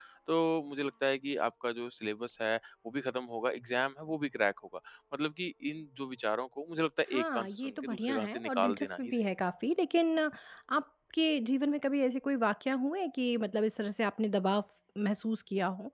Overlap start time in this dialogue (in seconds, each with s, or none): 7.1 s